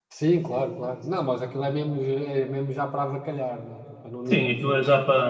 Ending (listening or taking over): taking over